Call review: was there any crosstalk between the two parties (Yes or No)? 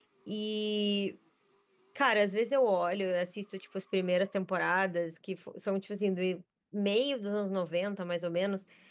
No